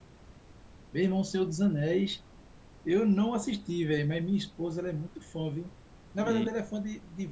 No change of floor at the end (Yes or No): Yes